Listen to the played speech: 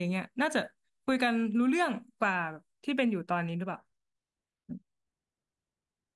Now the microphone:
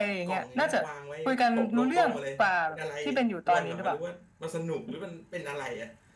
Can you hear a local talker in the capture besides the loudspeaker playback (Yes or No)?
Yes